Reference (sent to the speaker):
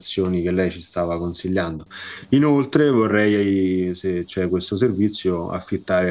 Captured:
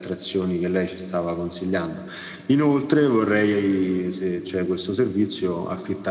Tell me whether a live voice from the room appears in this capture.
No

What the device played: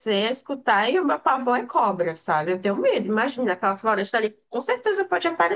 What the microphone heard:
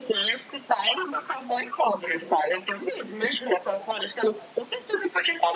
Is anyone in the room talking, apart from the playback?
No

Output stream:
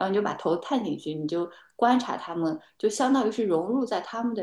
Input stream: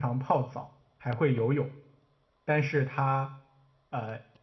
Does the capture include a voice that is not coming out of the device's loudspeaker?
Yes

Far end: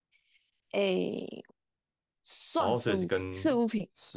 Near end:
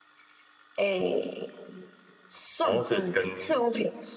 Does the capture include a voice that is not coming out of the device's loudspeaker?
No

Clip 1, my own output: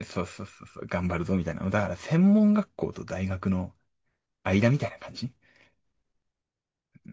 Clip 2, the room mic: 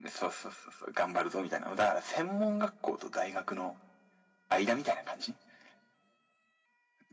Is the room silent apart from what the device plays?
Yes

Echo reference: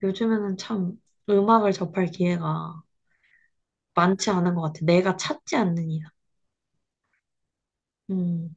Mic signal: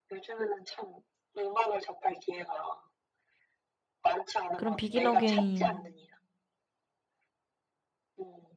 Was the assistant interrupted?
Yes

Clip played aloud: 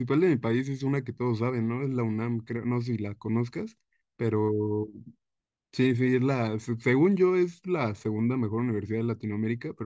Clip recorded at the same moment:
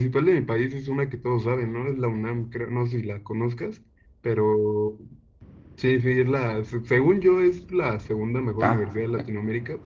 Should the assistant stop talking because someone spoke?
Yes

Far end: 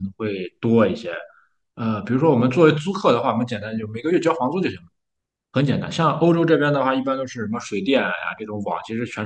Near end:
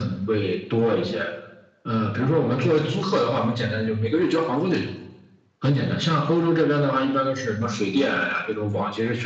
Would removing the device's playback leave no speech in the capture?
Yes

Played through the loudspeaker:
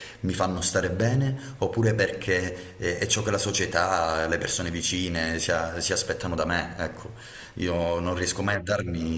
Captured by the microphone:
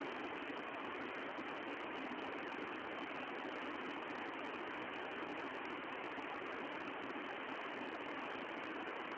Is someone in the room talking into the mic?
No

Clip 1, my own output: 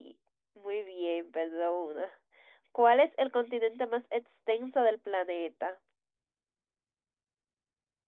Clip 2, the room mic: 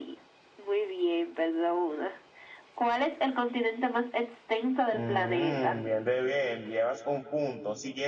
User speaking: Yes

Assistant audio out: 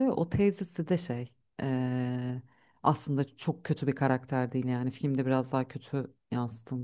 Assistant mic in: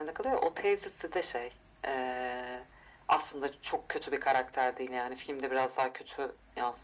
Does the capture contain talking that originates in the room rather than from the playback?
No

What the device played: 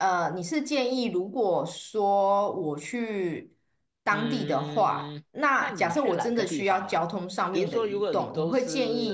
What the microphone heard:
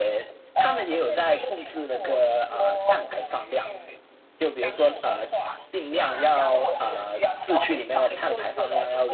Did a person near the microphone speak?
Yes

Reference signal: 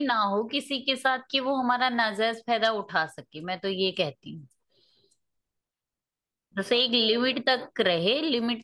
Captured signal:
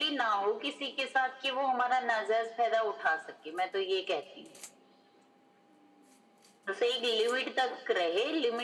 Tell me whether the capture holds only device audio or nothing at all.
Yes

